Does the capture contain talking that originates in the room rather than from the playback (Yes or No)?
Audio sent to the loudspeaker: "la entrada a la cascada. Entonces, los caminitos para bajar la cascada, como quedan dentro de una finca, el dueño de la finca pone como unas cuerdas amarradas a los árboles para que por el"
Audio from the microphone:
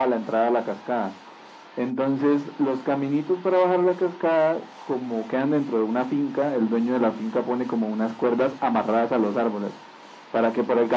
No